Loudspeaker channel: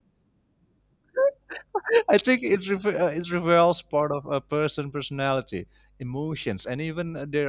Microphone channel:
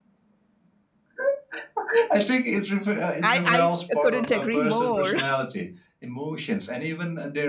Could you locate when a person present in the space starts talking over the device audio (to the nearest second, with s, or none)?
3 s